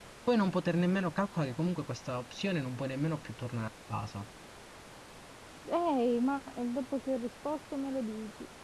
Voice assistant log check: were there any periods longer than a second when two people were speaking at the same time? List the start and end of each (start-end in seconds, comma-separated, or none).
none